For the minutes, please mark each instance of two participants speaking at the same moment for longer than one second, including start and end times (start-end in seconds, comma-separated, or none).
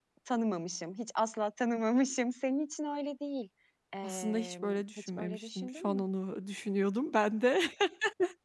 4.0-6.0